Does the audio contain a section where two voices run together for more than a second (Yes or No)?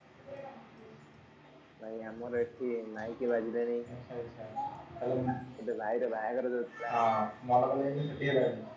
No